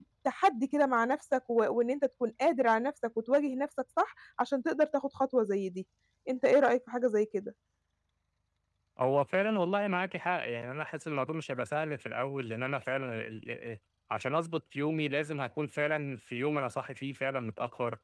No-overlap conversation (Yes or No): Yes